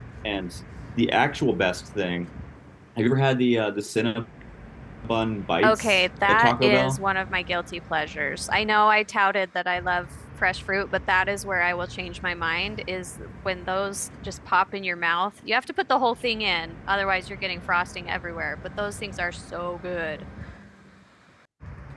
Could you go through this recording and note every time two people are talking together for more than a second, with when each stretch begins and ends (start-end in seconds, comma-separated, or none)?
5.6-7.0